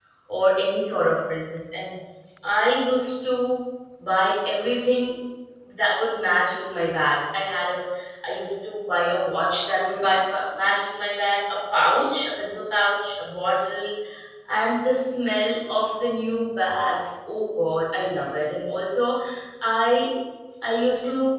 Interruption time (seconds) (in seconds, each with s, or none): none